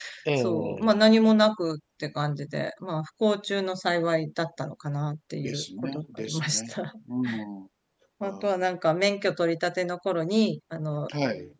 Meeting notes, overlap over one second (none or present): present